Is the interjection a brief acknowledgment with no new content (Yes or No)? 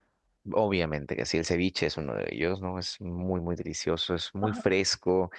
Yes